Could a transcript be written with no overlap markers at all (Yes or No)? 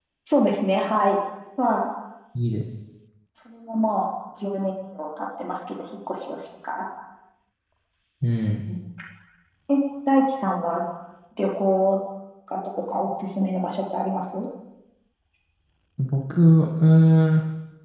Yes